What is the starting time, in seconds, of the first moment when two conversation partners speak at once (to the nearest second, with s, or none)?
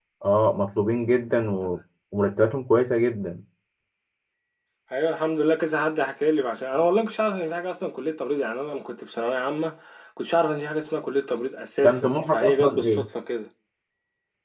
12 s